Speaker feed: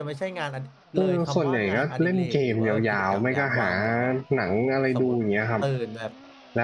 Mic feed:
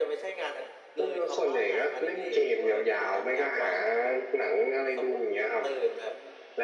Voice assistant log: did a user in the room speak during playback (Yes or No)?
No